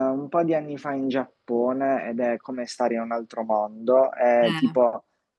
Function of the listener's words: listening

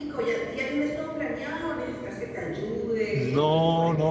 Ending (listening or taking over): taking over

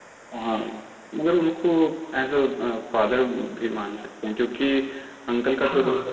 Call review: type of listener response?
listening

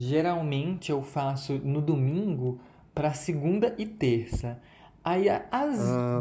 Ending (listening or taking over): listening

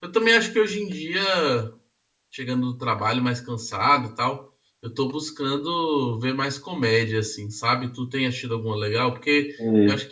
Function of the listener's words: listening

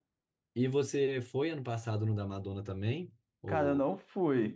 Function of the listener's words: taking over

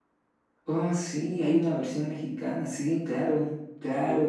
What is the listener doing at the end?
taking over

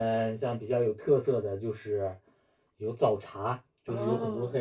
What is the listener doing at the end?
listening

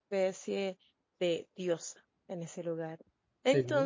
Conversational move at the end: listening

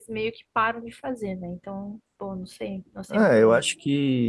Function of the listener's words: taking over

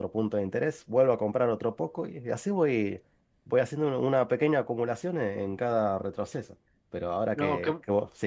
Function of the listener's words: listening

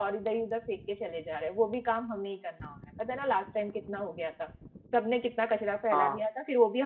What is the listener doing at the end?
listening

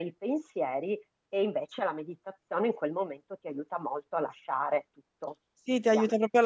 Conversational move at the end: taking over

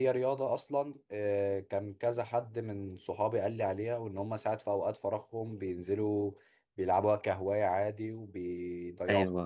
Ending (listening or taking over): taking over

